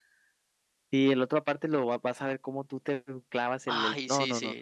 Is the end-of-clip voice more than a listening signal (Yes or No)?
Yes